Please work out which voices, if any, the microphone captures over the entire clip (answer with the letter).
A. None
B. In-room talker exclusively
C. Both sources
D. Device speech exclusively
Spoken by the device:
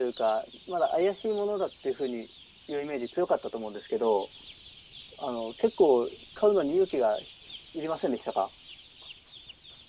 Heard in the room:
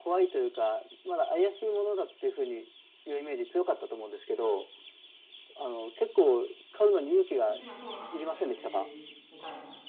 C